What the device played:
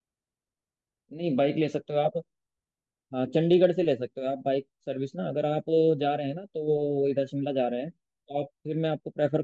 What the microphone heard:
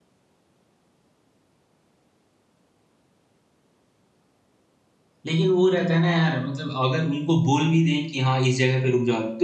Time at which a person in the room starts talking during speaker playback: 5.3 s

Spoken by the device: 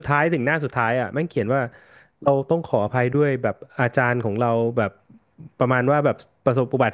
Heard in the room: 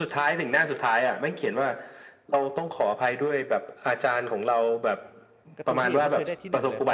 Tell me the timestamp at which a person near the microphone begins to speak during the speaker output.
5.5 s

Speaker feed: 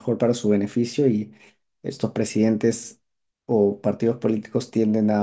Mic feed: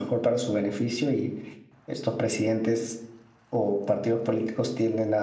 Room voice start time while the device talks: none

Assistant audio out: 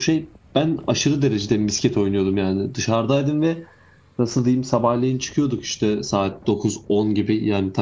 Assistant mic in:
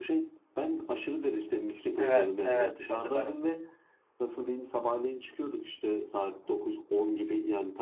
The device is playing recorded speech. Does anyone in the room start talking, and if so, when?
2.0 s

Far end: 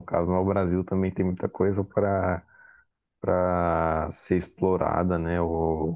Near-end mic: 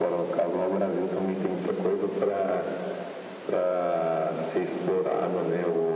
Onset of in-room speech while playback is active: none

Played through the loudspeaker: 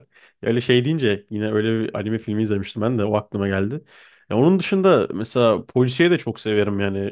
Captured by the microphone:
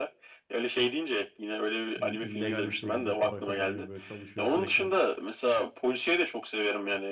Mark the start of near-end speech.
2.0 s

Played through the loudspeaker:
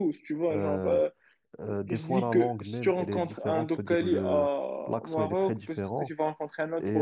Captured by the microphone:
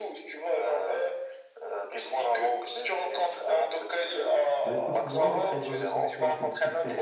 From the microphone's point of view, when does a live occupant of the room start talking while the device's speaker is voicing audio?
4.6 s

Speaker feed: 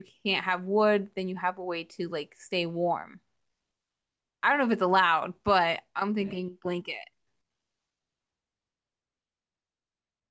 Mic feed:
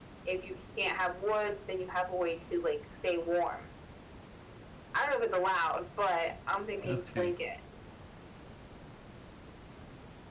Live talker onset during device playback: 6.8 s

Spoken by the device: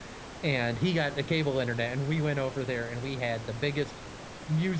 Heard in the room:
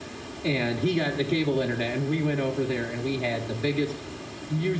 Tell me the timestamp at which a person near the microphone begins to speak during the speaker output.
none

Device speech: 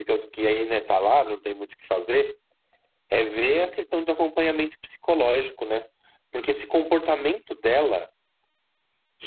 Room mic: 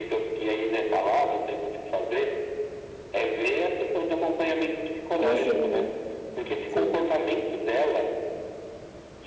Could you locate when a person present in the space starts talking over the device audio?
5.2 s

